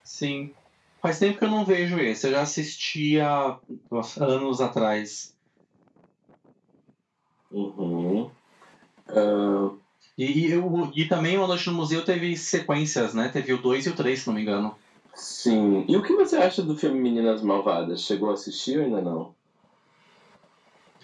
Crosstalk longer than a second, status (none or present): none